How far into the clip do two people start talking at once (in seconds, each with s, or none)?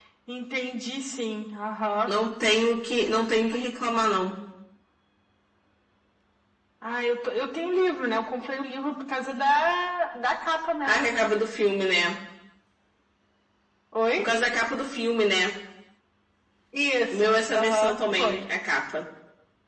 17.1 s